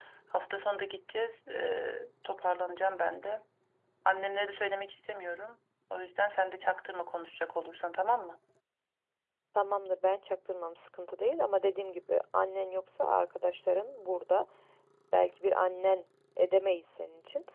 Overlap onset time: none

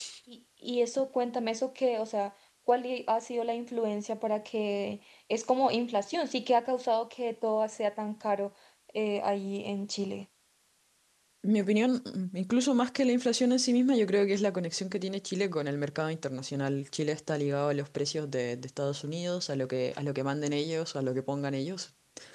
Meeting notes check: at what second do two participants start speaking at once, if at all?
none

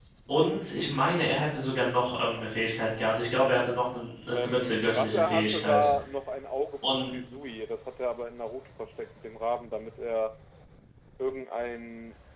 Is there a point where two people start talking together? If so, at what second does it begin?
4 s

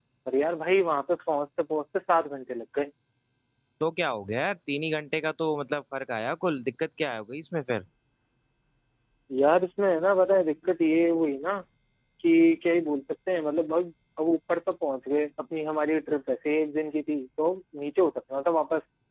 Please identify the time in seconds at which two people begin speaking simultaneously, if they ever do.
none

